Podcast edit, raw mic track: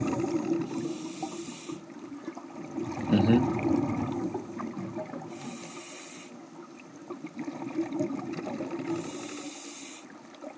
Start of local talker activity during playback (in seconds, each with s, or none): 3.1 s